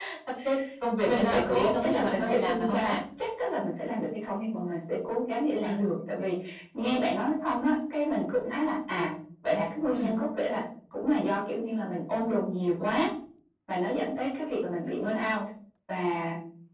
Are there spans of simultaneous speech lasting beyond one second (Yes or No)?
Yes